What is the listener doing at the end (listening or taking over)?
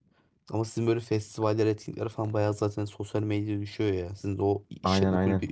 taking over